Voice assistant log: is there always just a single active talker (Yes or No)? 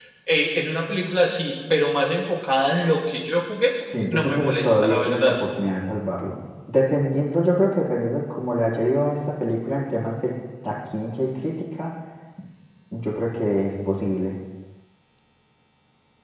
No